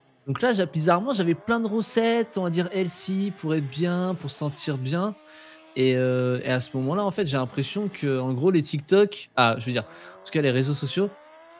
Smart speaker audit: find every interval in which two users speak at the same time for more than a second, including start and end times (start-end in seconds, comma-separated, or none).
none